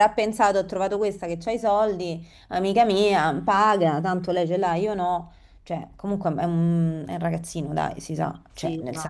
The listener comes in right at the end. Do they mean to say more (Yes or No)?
No